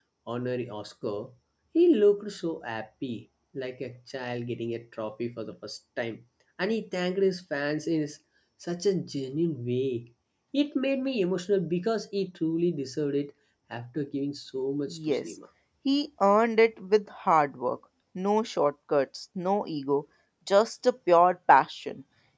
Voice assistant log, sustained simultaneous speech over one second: none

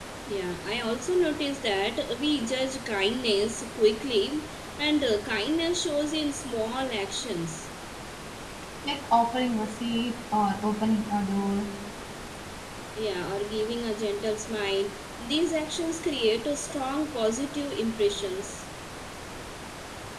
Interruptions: none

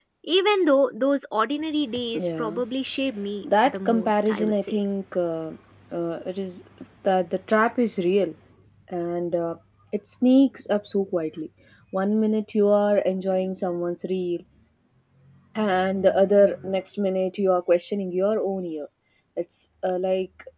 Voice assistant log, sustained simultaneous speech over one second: present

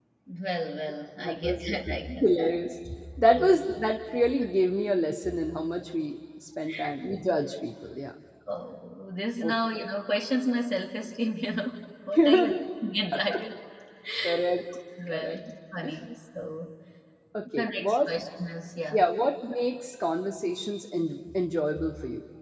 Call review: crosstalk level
present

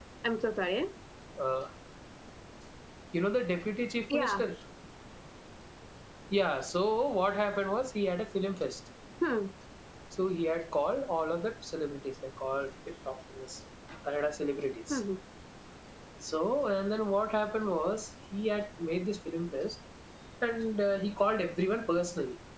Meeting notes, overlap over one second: none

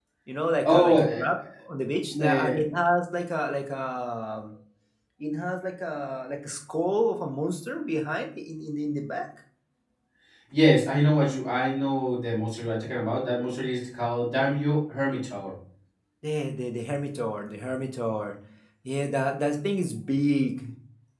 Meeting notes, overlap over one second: none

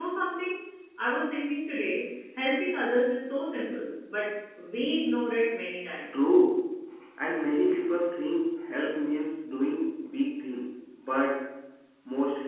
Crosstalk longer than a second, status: none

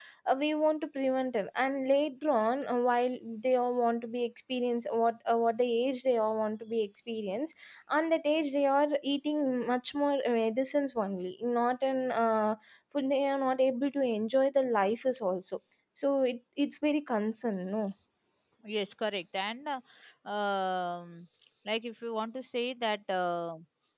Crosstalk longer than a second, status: none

